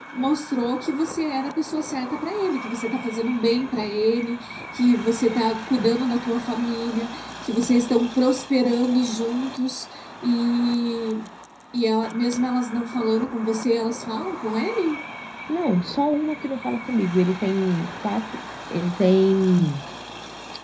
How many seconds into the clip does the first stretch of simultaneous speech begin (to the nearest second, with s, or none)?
none